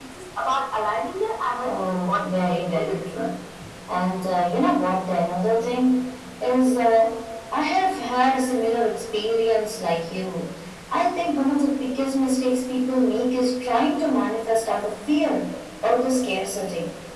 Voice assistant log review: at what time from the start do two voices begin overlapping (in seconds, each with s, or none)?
1.6 s